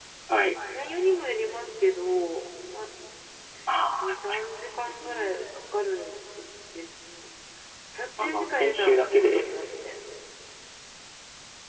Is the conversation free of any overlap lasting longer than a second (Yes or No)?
No